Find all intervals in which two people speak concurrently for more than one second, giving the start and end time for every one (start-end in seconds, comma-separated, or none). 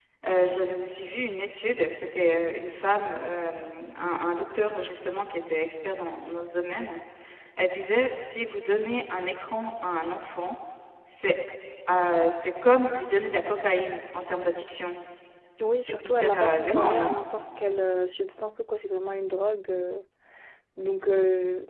15.8-17.1